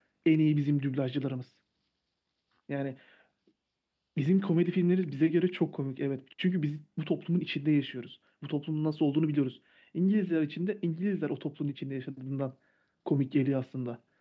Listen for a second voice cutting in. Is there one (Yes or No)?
No